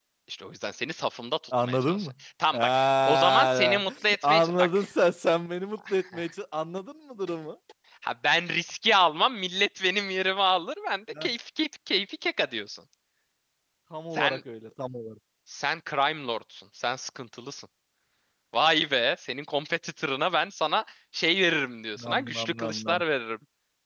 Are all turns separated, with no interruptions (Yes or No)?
No